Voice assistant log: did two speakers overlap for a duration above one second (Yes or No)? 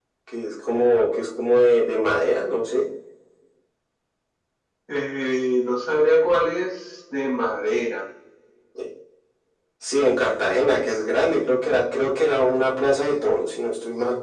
No